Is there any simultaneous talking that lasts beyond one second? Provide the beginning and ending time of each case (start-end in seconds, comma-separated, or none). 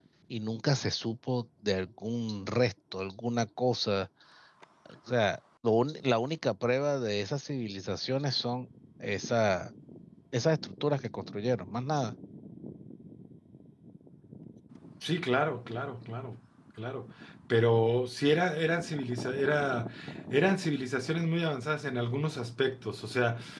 none